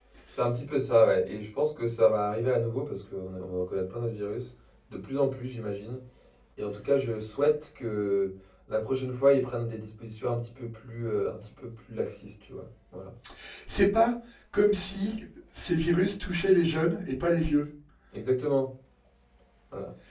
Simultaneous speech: No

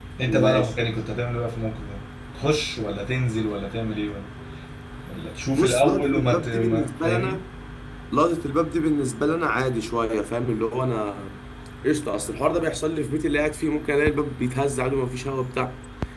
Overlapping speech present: Yes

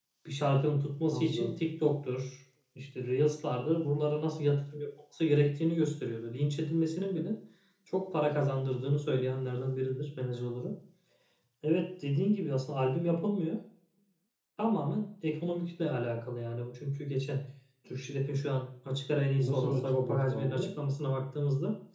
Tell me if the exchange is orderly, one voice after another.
No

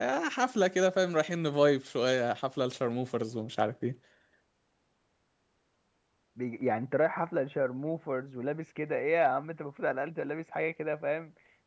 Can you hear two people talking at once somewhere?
No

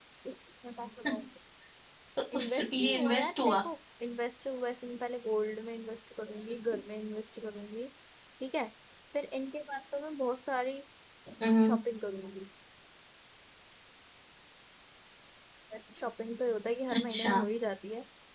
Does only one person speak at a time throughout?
No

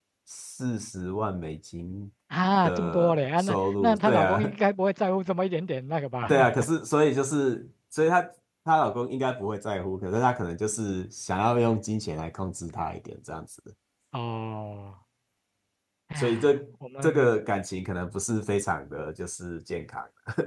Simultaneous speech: Yes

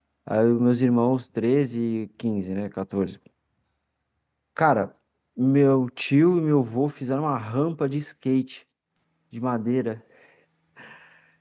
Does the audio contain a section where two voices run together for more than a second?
No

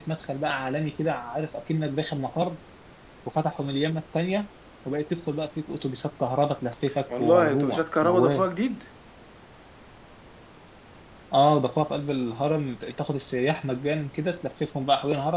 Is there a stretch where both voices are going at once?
Yes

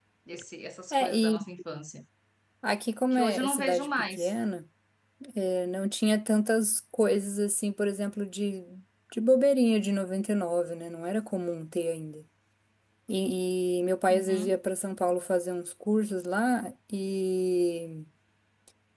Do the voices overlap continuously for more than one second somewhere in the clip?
Yes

